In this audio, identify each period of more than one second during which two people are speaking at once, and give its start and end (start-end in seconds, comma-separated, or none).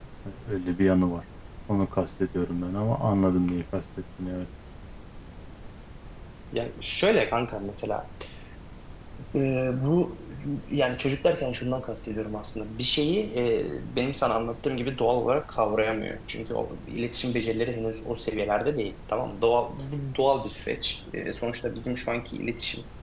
none